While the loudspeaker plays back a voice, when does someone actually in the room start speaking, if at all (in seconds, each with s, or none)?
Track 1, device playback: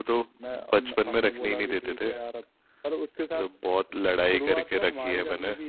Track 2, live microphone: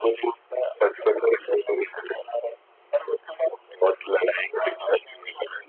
none